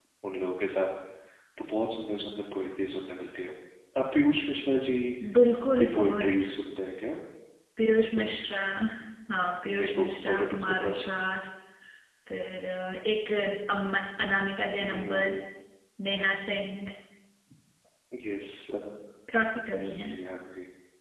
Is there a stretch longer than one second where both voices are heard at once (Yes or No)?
Yes